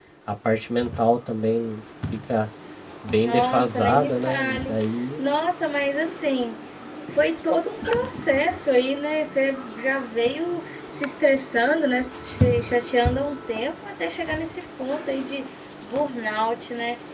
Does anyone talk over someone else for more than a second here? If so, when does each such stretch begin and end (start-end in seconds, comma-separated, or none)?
3.2-4.7